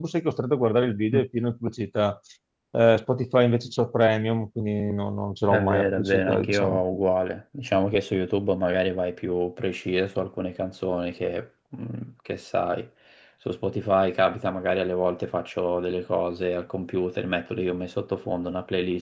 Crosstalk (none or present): present